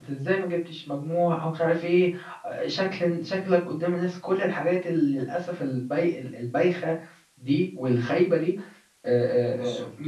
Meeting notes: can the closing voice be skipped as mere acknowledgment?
Yes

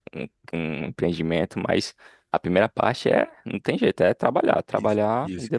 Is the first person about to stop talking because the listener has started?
Yes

